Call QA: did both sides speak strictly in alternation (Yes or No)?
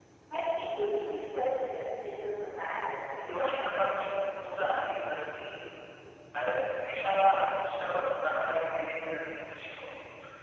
Yes